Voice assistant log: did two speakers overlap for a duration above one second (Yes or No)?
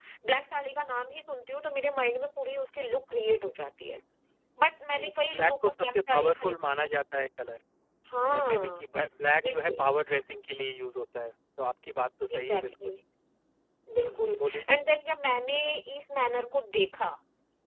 Yes